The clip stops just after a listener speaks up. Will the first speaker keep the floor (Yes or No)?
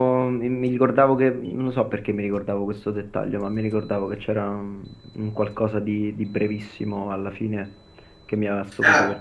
No